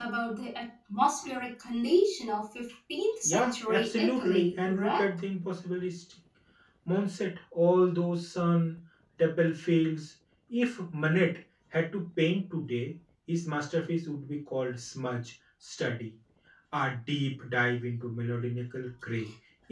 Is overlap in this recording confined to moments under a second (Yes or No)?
No